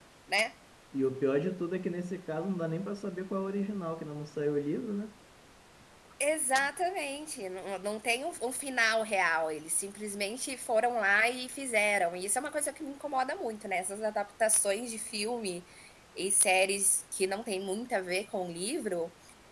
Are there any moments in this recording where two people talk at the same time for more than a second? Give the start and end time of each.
none

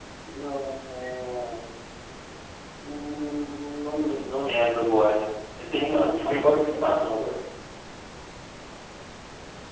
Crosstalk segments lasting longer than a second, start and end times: 5.9-7.2

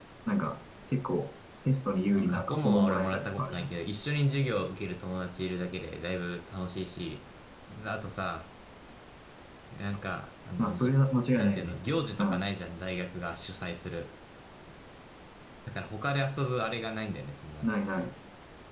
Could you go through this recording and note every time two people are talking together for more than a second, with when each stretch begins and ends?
2.1-3.7

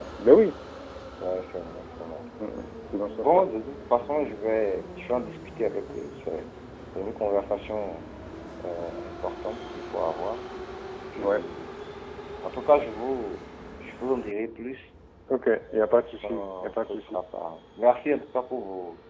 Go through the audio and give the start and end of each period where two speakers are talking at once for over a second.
15.7-17.2

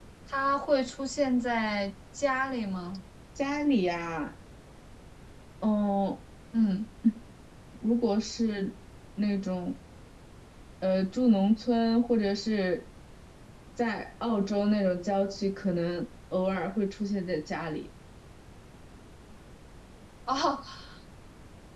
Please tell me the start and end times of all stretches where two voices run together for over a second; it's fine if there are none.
none

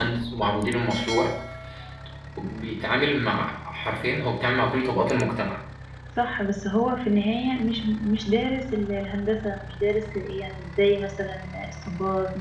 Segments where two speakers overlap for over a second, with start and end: none

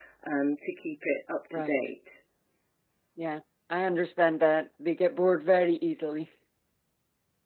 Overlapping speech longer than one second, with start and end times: none

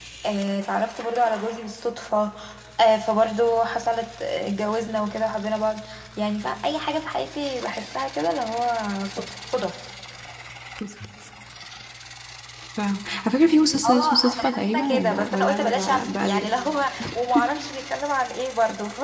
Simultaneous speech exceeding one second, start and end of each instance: 13.8-16.5

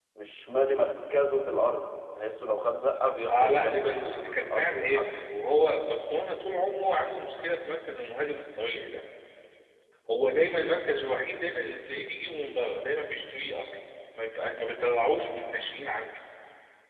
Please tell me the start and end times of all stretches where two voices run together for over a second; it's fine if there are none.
3.3-5.1

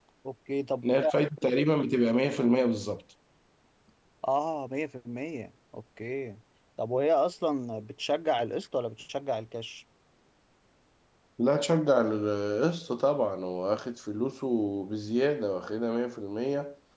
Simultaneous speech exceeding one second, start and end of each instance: none

